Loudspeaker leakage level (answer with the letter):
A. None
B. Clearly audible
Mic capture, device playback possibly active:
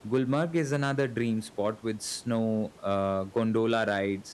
A